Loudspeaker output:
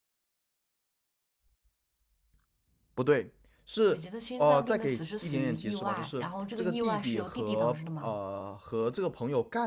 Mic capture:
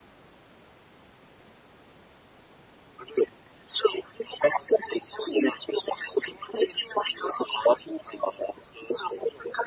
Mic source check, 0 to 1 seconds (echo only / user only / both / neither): neither